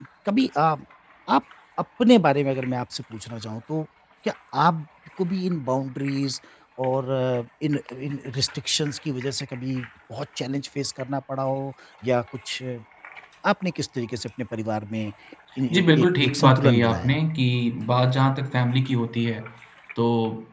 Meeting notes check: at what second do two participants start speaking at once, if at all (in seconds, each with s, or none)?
15.7 s